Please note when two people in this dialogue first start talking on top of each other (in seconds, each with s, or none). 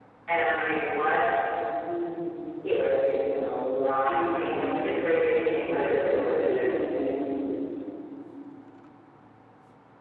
4.0 s